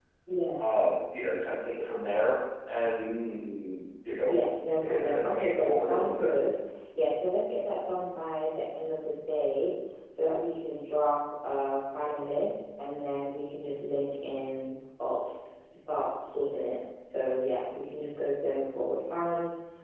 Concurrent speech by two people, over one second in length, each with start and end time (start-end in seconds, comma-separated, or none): 4.8-6.3